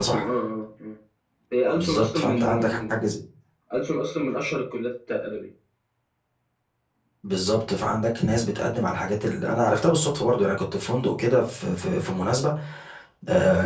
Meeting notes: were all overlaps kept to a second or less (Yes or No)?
No